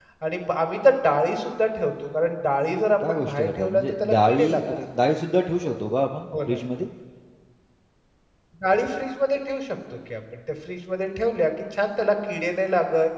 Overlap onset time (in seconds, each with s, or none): 3.1 s